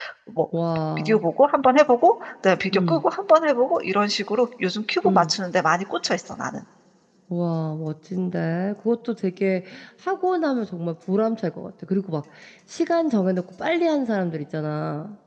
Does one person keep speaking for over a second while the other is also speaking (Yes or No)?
No